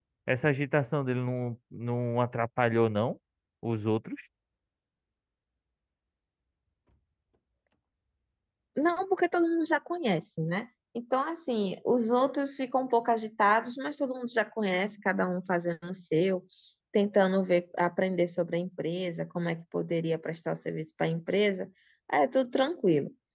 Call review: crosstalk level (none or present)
none